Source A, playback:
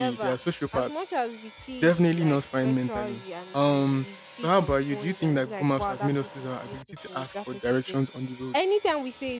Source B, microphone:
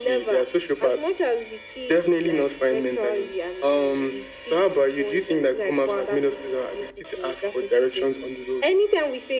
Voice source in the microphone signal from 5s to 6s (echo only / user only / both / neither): echo only